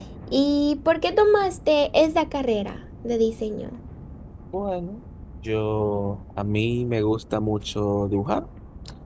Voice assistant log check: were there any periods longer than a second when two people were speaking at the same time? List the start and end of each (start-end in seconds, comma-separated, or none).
none